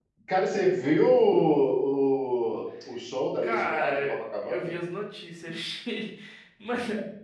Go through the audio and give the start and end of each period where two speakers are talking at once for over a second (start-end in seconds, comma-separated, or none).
3.4-4.8